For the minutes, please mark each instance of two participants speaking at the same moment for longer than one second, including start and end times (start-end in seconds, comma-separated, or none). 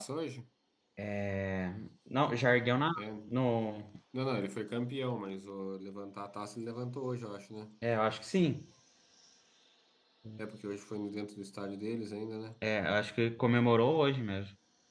none